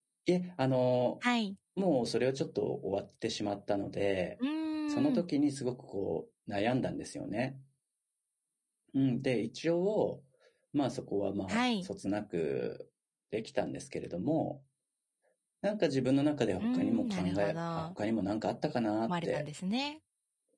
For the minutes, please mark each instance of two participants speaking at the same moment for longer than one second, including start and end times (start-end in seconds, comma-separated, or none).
16.6-17.9